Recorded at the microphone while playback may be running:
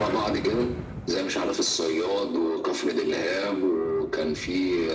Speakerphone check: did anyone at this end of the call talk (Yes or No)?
No